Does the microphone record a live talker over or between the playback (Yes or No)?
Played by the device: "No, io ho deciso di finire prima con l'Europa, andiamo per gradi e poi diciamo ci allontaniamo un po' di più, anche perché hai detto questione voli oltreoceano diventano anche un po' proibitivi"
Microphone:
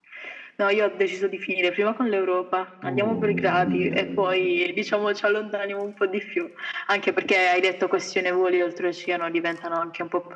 Yes